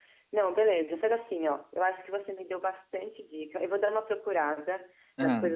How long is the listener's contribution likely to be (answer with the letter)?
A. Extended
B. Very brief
B